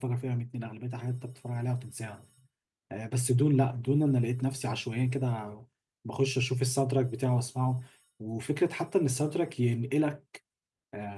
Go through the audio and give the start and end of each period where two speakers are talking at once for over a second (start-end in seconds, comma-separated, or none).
none